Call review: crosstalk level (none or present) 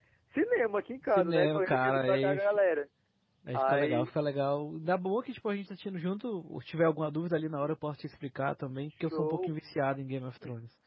present